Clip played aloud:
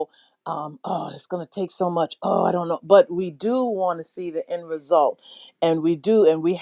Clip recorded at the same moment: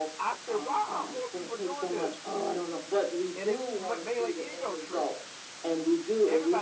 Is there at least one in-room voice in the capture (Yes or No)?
Yes